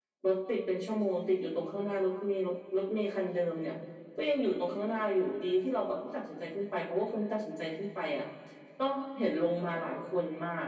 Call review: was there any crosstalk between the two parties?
No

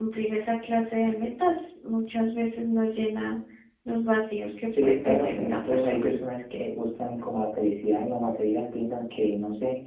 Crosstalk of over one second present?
Yes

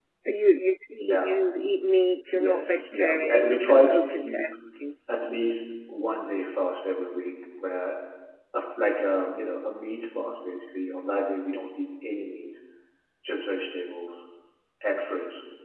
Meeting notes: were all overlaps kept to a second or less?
No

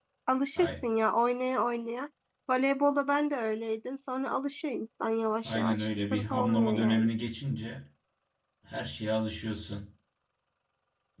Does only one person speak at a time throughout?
No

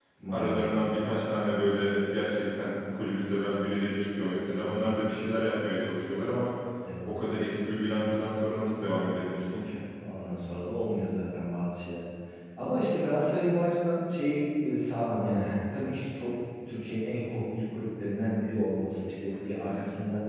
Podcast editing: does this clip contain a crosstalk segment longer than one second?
No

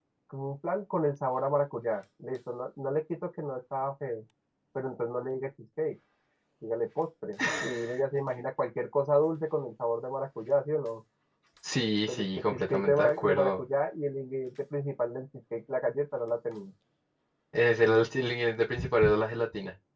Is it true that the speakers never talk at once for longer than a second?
No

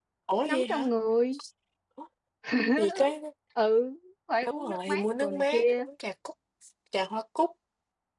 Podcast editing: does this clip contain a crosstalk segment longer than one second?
Yes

